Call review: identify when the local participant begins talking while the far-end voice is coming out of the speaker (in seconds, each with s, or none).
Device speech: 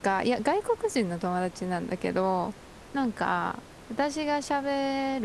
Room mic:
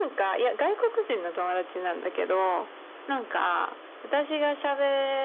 none